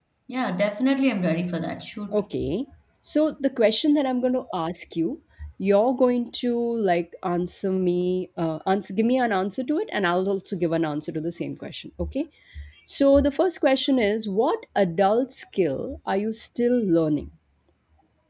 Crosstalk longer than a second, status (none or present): none